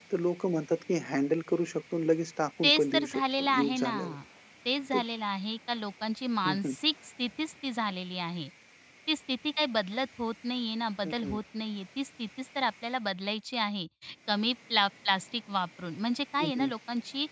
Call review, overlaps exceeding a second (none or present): present